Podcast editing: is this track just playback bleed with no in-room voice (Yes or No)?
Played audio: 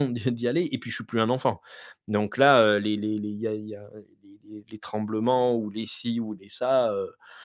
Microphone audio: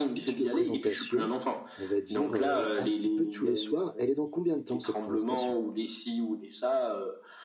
No